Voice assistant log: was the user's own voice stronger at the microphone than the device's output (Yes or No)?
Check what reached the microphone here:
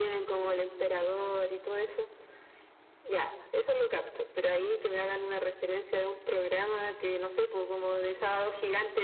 No